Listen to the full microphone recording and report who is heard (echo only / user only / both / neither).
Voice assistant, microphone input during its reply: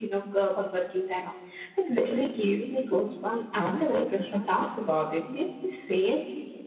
user only